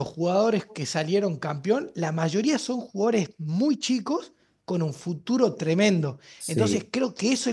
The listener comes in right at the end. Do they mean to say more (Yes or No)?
No